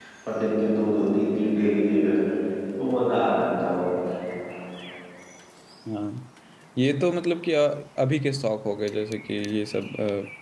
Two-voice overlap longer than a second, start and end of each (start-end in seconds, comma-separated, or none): none